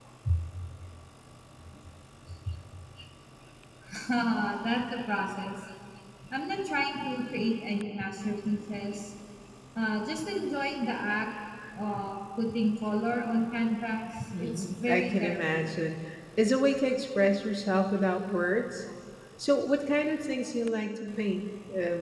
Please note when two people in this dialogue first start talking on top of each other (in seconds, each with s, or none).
14.3 s